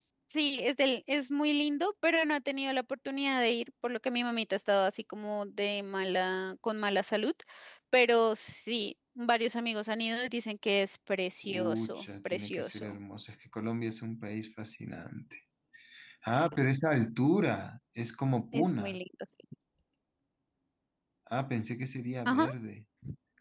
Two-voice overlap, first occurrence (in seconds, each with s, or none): 11.4 s